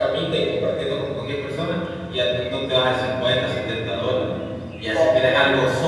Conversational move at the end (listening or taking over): listening